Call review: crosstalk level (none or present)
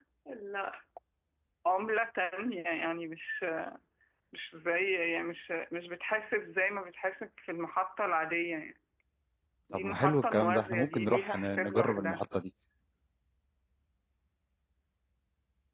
present